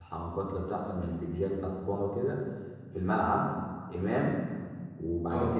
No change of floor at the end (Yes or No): Yes